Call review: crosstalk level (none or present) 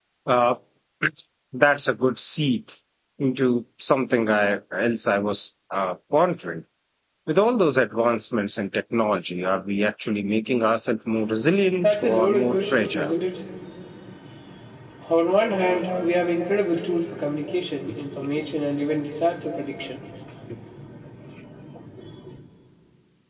present